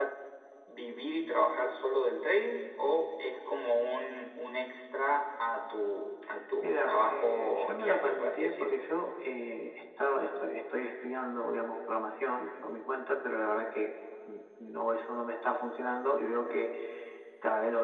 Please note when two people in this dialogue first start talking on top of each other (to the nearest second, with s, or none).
7 s